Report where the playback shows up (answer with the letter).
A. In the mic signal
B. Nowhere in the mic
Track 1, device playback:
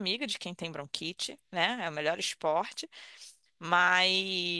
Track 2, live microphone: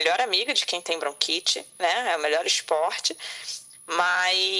A